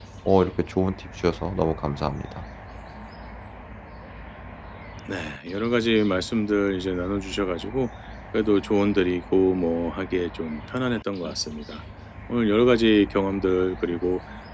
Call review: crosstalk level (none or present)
none